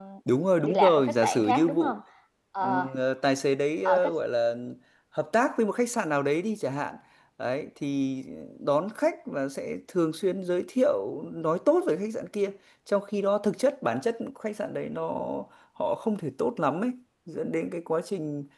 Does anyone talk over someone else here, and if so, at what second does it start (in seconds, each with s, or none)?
0.6 s